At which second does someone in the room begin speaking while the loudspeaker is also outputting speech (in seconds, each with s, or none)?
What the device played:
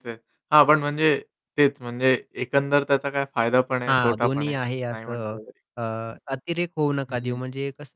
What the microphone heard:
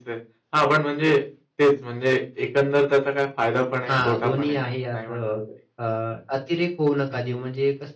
none